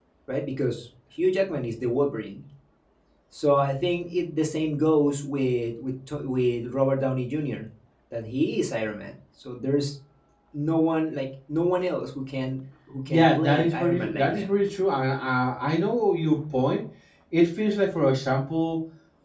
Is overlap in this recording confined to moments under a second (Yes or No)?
No